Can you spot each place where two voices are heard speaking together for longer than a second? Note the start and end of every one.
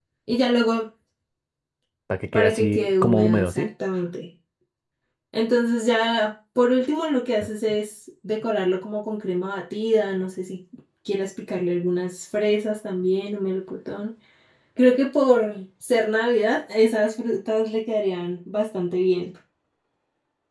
2.3-3.7

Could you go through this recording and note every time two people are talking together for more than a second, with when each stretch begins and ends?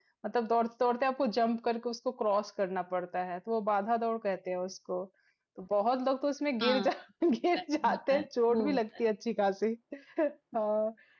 7.6-8.8

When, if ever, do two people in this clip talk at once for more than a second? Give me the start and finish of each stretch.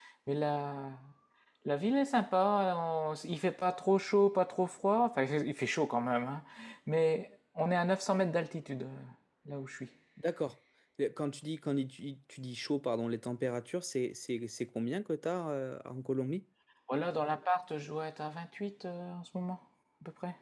none

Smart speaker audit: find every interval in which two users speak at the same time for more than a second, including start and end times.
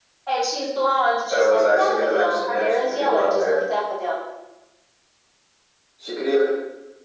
1.3-3.6

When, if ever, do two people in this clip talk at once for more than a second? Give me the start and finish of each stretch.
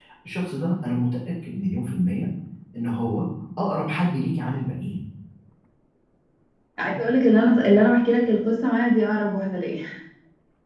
none

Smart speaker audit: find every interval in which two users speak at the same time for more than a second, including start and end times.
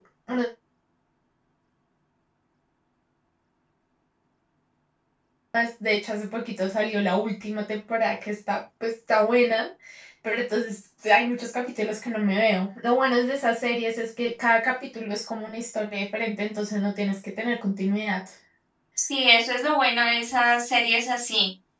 none

